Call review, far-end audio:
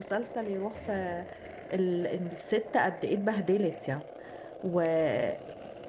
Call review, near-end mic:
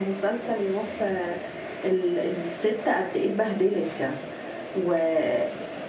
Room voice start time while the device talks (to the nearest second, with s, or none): none